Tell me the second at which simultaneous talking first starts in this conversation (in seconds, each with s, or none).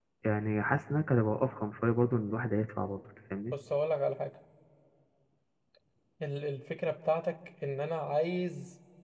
none